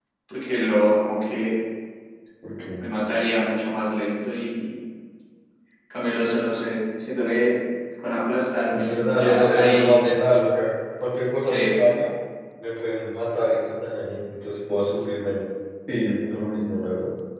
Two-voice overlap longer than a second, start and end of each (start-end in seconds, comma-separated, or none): 8.7-10.0